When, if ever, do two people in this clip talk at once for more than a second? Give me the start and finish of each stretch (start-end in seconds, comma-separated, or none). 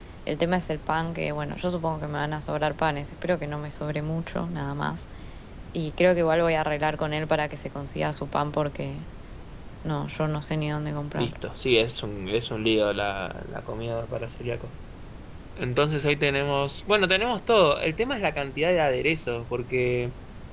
none